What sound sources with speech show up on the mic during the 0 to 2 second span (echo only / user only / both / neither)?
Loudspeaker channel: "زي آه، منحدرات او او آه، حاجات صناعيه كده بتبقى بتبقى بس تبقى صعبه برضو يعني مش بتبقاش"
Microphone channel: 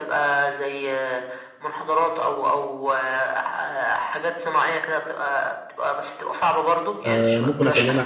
echo only